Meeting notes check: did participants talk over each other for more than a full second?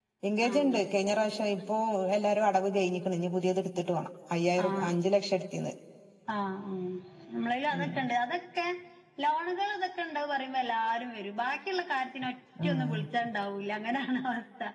No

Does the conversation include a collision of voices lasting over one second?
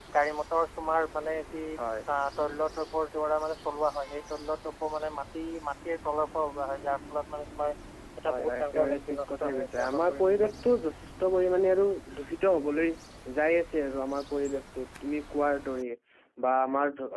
Yes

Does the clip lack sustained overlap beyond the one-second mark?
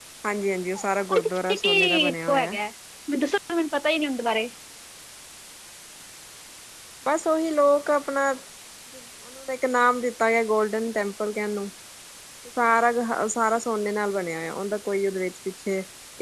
No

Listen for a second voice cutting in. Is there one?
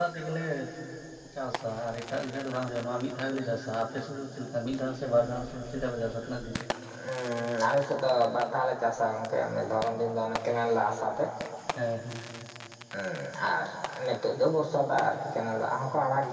No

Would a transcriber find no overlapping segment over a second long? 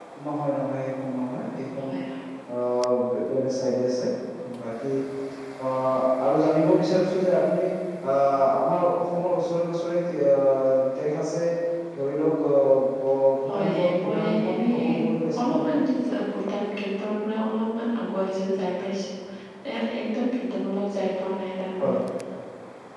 No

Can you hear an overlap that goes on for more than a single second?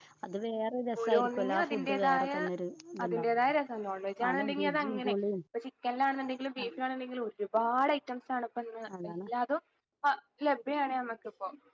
Yes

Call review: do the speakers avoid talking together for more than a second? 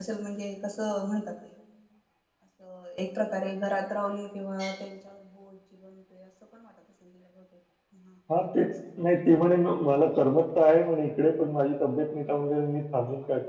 Yes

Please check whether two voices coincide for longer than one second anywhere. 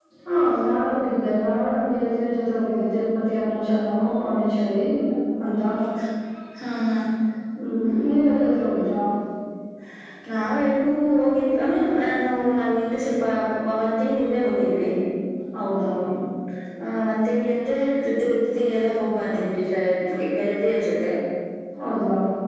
No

